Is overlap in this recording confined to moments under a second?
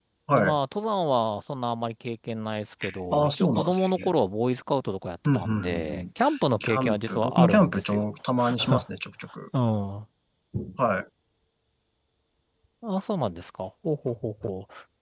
No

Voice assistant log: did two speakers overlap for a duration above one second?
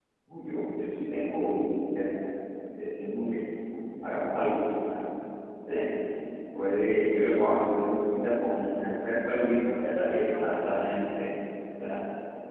Yes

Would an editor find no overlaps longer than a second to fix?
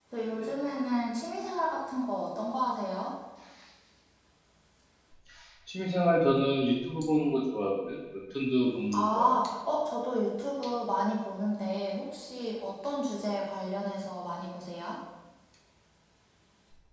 Yes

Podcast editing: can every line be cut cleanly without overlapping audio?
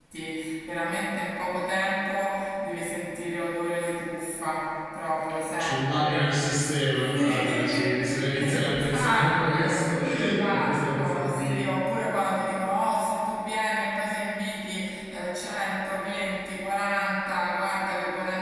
No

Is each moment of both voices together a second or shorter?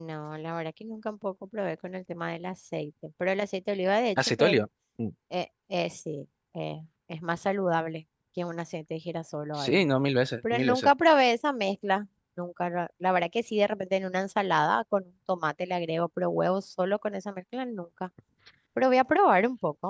Yes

